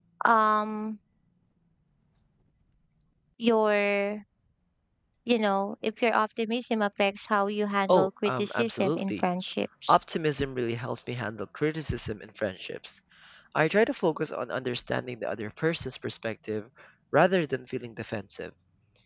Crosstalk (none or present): present